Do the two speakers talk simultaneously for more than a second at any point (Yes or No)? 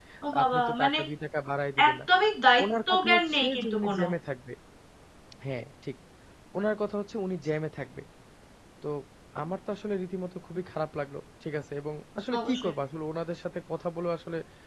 Yes